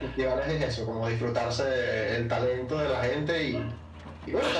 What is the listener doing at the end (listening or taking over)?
listening